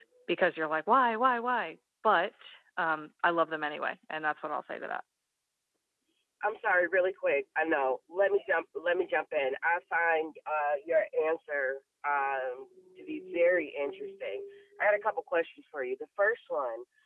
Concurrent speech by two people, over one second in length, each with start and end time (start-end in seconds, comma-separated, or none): none